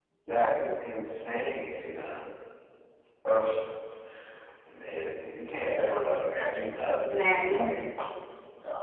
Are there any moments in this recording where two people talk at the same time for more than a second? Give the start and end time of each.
6.4-7.7

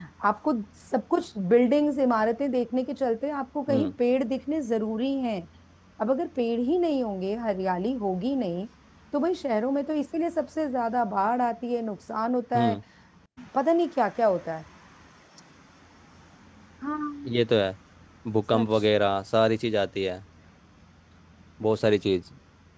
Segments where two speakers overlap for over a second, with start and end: none

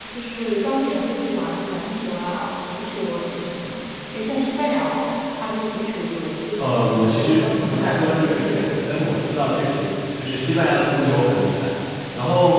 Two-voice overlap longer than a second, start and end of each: 6.6-8.7

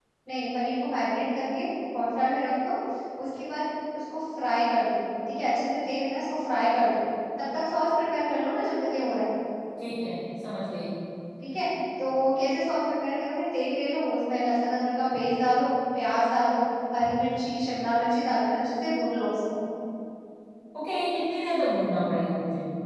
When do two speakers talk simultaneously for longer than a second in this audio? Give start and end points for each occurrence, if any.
none

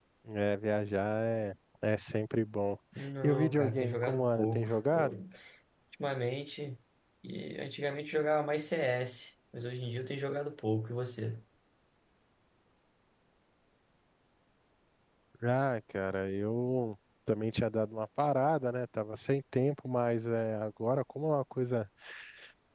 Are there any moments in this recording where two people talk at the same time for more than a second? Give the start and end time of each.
3.2-5.1

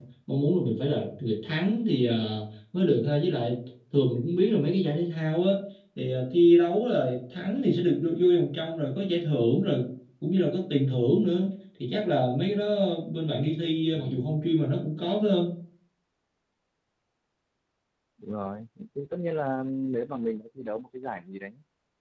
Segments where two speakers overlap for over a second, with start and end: none

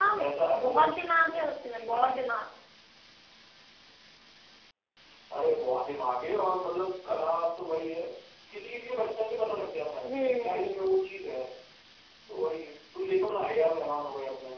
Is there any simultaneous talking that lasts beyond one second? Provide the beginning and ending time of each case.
0.6-2.2

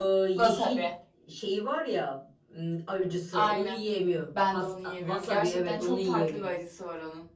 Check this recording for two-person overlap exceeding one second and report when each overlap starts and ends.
4.5-6.5

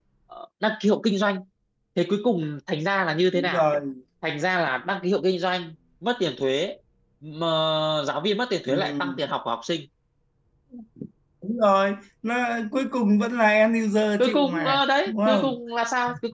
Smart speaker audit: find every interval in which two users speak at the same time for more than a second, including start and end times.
14.2-15.6

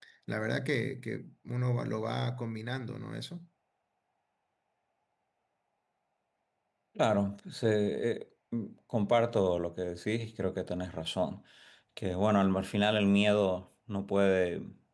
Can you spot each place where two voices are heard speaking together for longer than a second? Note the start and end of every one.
none

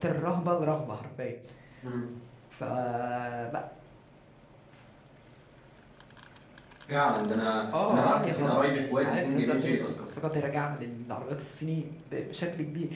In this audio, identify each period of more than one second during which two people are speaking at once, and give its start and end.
7.7-10.1

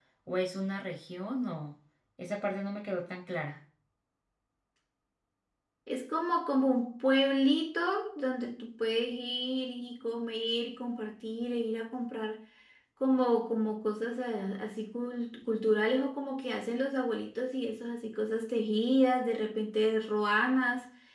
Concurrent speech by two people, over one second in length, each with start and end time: none

